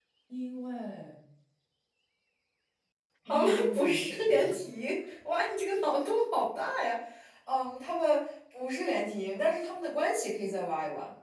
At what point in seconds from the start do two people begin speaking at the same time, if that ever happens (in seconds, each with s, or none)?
3.3 s